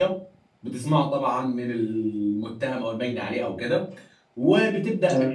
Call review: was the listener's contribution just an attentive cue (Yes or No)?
Yes